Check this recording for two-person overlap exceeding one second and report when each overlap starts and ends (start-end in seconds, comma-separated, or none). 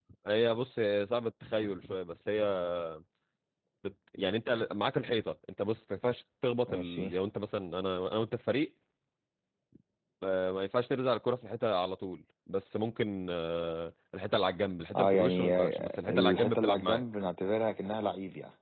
14.9-17.0